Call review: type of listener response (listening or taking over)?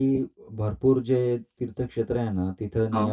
listening